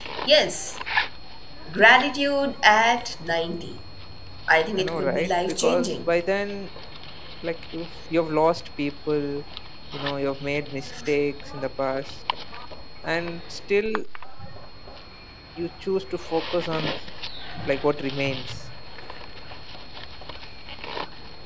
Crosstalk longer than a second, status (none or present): present